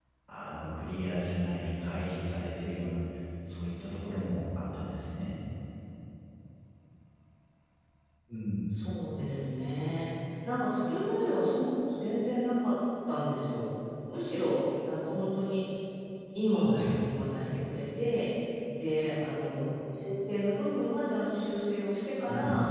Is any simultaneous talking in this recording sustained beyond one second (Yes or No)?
No